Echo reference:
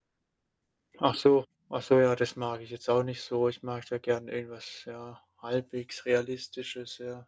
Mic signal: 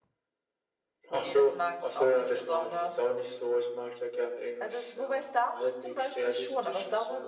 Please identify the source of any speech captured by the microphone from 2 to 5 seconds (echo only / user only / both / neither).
both